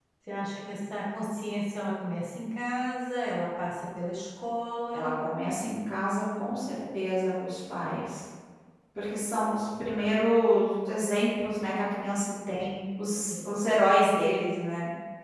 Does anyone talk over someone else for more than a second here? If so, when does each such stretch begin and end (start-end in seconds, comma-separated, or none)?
none